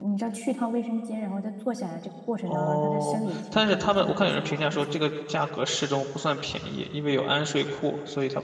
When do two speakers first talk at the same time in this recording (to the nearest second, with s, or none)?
2 s